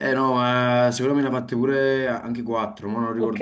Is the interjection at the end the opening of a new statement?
Yes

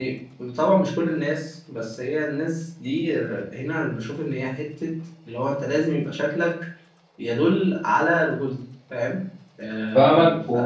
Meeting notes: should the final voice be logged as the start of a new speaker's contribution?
Yes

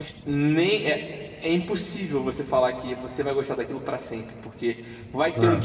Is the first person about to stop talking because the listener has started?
No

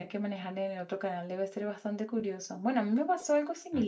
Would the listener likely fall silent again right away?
Yes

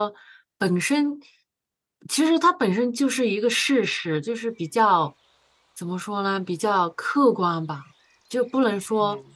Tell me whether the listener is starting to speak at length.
No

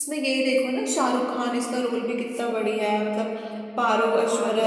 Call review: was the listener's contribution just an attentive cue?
Yes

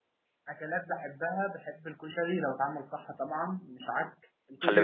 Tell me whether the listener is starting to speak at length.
Yes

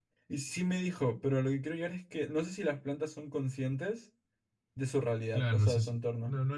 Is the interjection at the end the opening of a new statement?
Yes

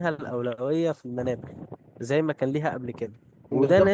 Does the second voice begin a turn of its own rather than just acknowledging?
No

